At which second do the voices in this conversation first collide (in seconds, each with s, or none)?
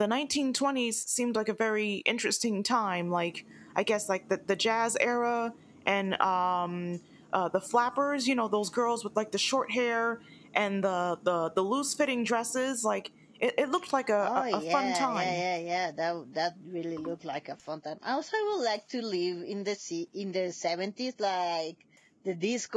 14.2 s